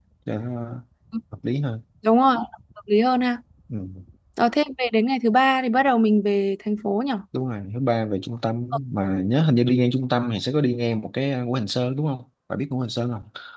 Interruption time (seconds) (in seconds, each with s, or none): none